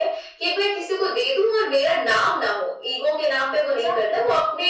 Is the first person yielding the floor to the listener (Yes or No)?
No